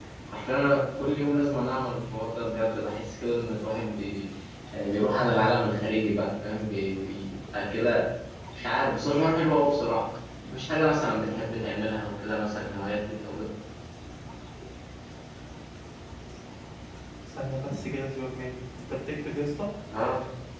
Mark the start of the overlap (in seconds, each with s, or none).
none